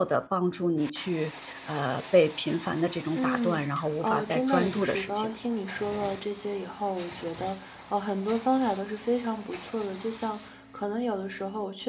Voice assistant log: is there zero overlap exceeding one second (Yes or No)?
No